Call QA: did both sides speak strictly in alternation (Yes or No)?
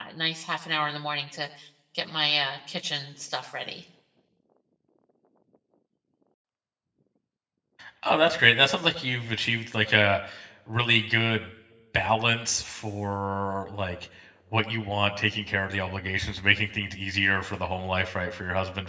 Yes